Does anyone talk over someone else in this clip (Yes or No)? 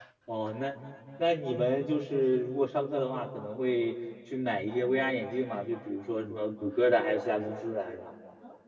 No